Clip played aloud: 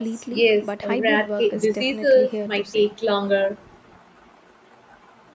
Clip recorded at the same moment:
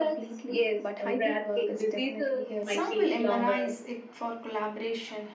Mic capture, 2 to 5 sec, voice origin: both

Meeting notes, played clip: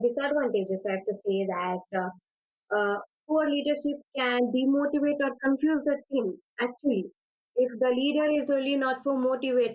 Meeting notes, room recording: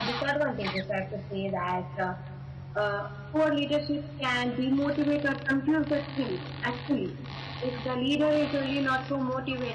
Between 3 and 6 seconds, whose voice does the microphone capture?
echo only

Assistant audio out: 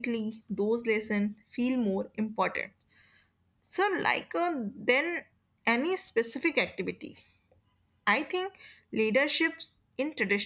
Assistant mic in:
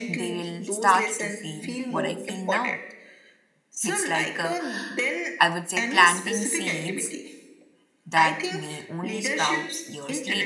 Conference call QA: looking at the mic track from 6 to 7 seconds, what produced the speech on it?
both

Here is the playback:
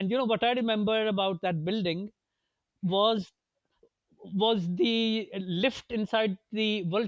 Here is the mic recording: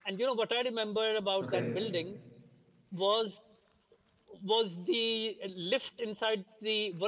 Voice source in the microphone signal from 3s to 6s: echo only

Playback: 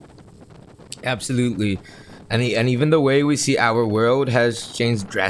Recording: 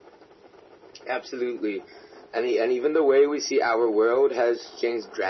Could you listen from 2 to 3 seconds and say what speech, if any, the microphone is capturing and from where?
echo only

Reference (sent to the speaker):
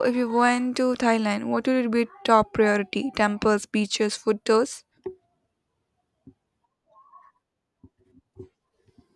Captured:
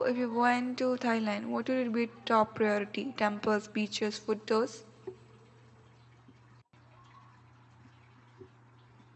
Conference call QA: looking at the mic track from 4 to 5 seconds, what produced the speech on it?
echo only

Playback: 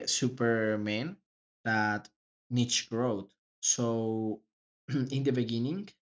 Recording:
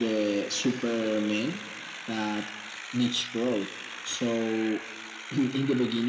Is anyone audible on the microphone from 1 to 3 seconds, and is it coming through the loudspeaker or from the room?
echo only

